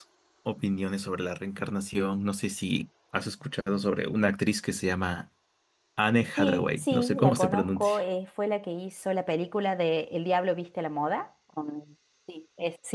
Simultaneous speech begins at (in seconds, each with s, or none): 6.4 s